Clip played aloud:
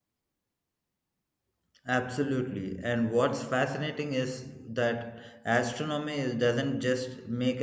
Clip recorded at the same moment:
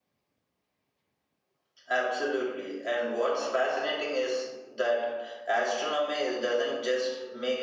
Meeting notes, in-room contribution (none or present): none